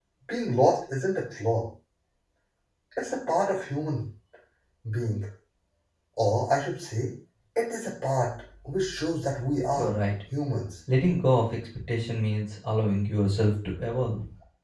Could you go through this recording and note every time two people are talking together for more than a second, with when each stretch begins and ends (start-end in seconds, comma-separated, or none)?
none